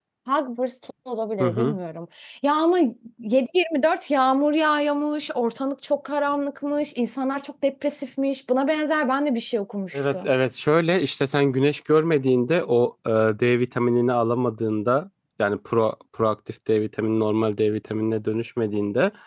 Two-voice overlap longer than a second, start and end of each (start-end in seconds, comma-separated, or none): none